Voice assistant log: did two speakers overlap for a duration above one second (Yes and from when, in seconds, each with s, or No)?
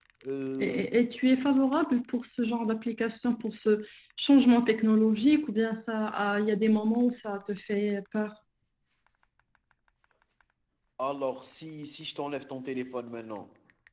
No